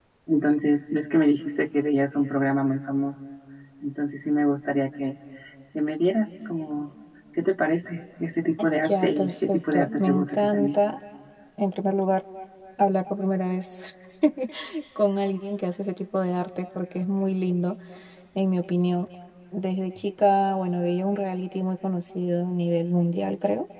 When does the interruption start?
8.8 s

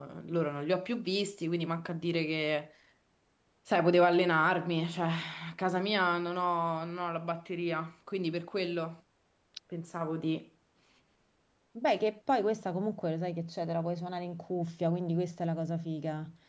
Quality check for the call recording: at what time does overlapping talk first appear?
none

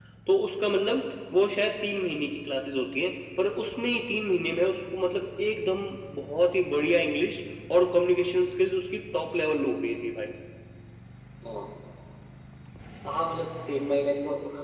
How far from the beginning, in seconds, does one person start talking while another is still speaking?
none

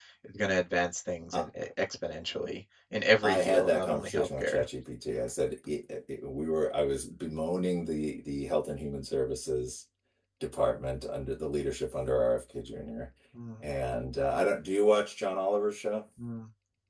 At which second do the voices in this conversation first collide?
3.2 s

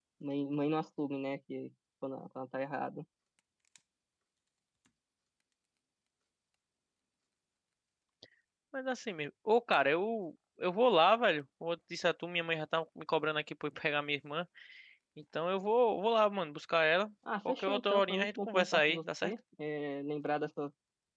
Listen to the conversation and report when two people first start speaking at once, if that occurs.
17.5 s

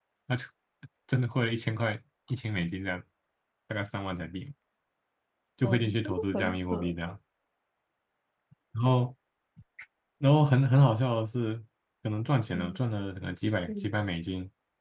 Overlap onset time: 5.6 s

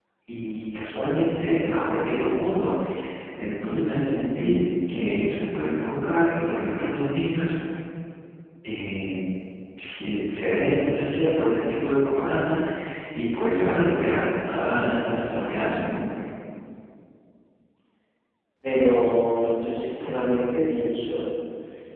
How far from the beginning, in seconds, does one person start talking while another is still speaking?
none

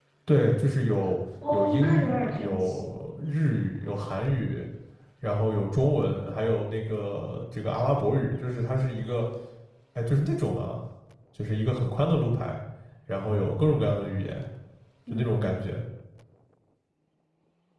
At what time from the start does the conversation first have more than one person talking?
1.5 s

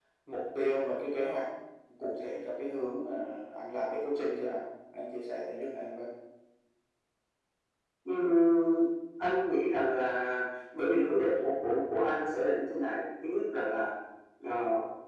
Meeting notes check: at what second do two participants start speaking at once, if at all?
none

